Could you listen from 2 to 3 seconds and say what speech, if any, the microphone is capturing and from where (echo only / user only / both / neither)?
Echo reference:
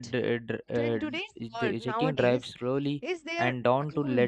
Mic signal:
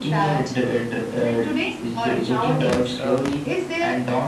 both